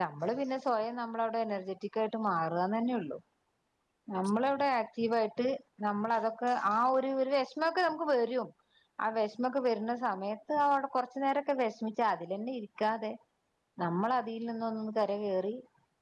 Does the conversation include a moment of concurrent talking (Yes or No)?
No